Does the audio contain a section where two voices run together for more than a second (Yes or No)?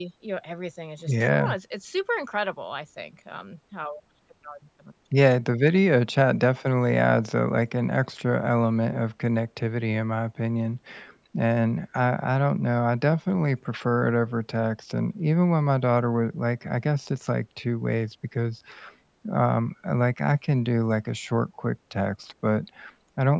No